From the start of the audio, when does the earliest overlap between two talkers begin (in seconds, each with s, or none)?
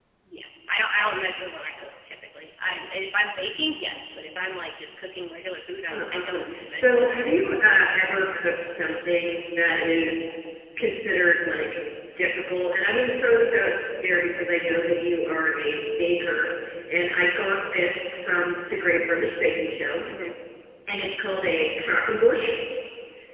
5.9 s